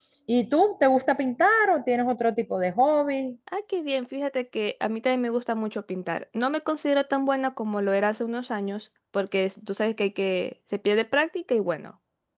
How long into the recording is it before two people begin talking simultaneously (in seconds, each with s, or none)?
none